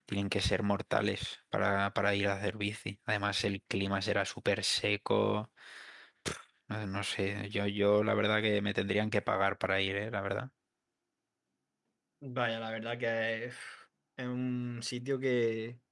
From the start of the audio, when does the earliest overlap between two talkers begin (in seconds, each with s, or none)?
none